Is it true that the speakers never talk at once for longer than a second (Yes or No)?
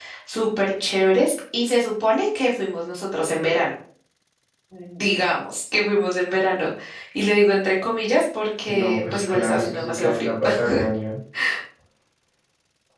No